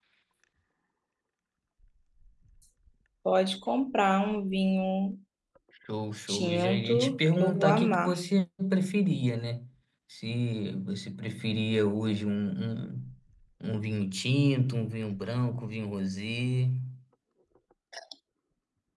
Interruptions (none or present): present